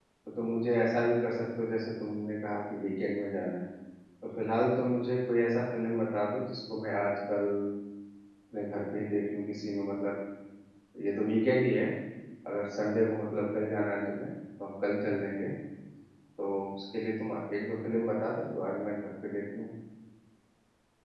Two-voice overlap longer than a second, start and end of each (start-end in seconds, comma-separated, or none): none